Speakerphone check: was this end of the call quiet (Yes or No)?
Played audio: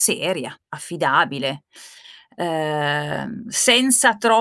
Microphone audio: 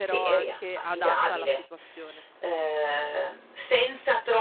No